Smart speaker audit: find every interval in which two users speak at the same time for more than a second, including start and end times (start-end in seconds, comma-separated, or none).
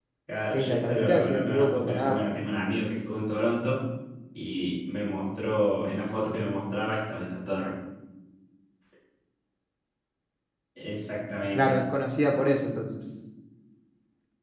0.6-2.2